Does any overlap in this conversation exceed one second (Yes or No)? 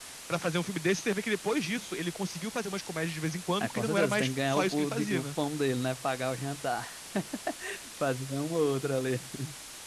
Yes